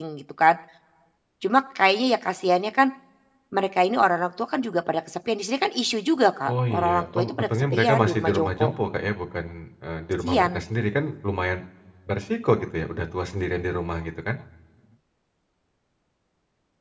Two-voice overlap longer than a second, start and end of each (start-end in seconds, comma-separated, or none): 6.5-8.7